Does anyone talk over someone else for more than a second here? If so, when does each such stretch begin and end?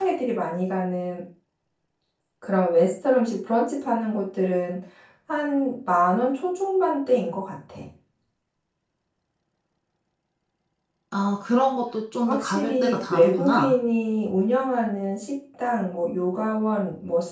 12.2-13.7

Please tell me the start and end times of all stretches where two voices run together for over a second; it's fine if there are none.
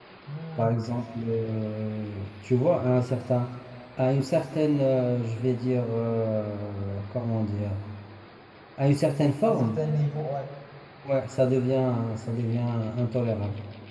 none

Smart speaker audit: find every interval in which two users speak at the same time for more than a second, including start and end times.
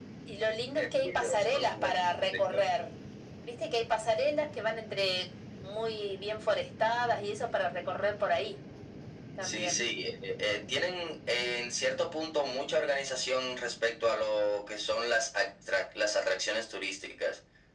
0.8-2.7

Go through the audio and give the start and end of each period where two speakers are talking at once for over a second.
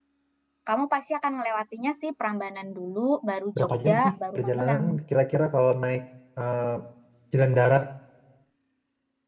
3.6-4.8

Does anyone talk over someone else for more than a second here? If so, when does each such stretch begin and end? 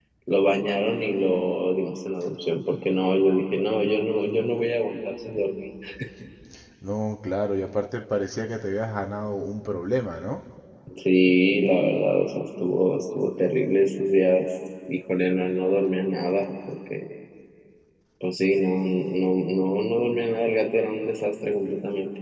none

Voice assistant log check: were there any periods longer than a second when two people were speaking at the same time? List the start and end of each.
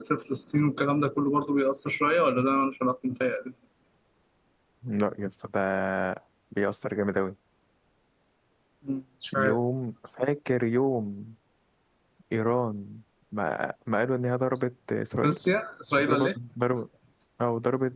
none

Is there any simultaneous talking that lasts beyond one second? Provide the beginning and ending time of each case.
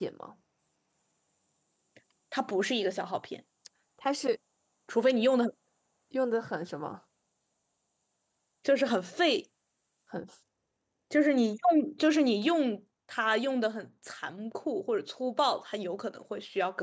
none

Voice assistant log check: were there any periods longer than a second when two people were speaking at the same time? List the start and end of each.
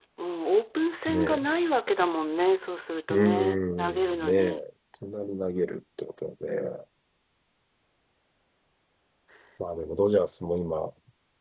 3.1-4.6

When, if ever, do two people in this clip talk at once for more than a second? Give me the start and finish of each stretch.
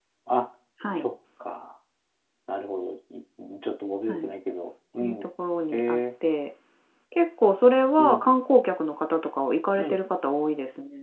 none

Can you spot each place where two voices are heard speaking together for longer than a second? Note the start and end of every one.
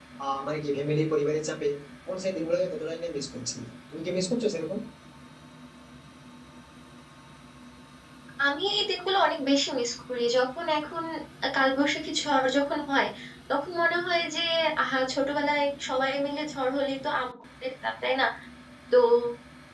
none

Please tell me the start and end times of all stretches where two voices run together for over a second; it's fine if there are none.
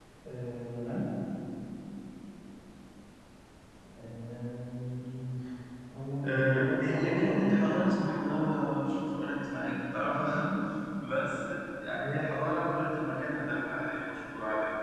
6.2-7.8

